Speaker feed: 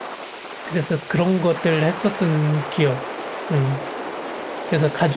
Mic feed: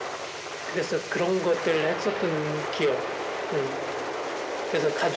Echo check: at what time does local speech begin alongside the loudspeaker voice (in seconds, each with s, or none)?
none